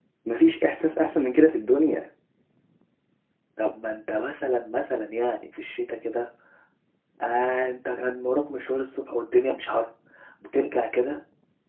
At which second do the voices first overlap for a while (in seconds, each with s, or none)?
none